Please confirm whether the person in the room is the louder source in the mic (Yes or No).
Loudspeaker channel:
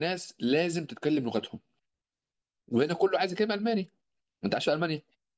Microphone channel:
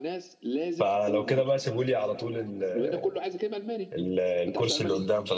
Yes